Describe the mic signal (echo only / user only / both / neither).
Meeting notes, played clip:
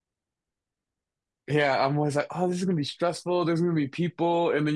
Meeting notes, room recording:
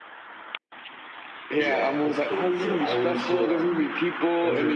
both